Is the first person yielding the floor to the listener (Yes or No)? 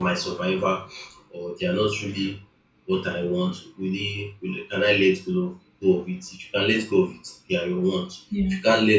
No